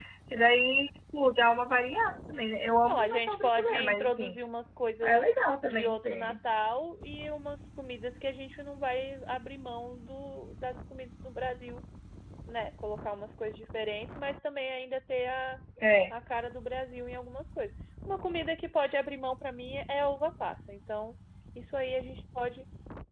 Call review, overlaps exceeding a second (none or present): present